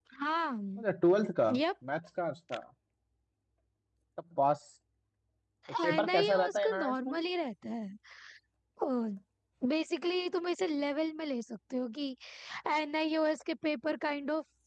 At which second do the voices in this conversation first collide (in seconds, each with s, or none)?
5.8 s